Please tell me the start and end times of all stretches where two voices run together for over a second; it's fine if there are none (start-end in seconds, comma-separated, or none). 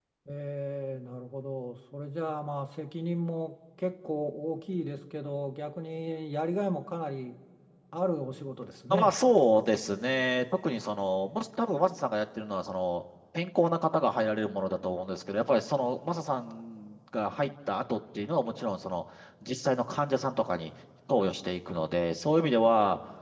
none